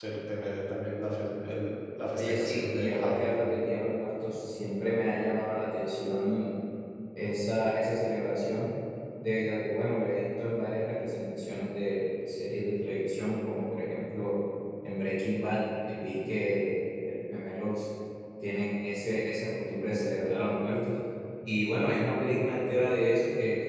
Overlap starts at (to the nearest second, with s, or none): 2 s